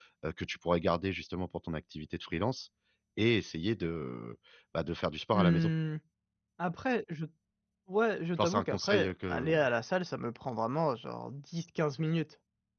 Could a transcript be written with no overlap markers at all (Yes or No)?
No